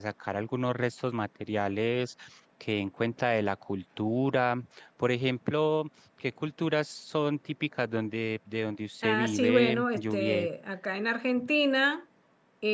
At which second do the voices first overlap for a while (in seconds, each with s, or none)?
9.0 s